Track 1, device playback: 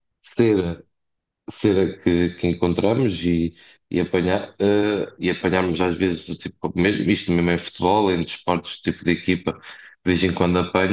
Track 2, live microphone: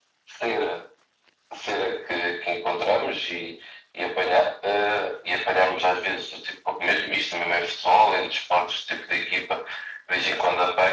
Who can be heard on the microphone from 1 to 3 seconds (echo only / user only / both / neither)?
echo only